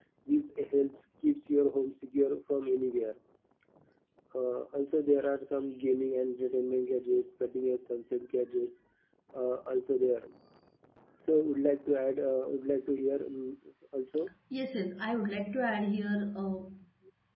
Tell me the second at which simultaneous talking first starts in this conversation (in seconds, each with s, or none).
none